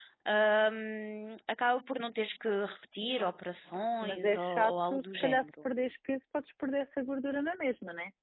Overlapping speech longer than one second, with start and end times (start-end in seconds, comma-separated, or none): 4.0-5.5